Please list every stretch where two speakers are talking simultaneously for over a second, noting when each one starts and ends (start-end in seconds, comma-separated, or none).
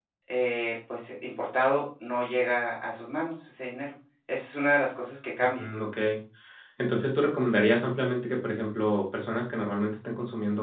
none